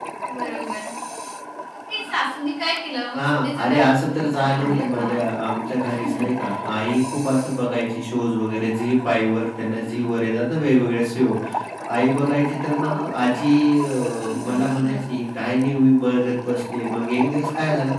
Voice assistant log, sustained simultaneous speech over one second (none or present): present